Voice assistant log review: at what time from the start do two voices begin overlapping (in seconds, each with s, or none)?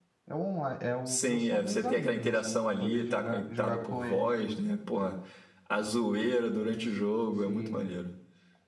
1.1 s